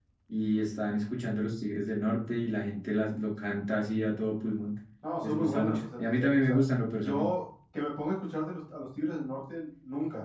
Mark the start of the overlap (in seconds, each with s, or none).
5.2 s